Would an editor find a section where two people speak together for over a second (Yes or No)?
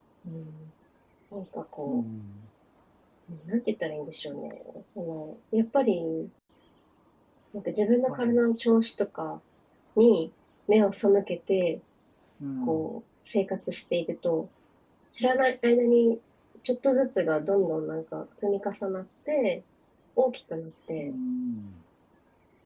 No